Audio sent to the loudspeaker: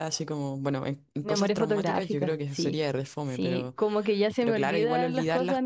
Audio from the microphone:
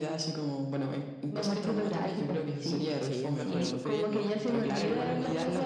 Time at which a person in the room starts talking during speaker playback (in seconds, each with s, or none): 3.0 s